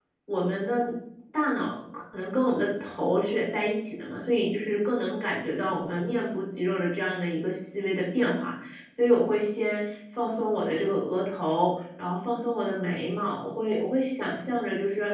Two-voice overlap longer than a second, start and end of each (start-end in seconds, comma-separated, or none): none